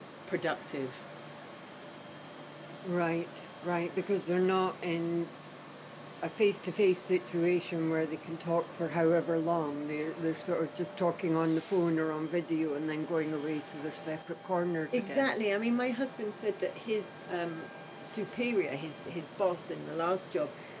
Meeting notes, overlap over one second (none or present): none